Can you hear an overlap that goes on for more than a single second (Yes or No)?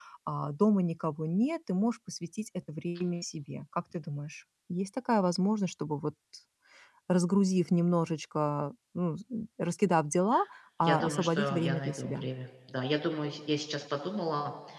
Yes